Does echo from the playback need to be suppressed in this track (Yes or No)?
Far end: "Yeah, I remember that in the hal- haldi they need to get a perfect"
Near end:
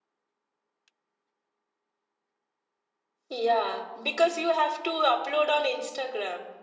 No